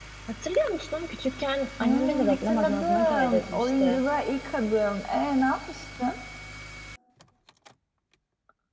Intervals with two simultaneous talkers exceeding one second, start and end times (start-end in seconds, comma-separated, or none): 1.8-4.0